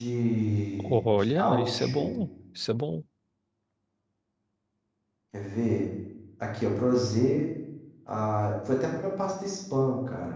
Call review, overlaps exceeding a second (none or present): present